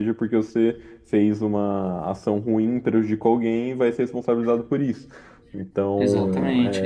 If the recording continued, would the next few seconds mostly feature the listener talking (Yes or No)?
Yes